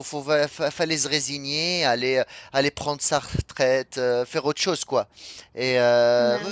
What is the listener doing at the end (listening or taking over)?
listening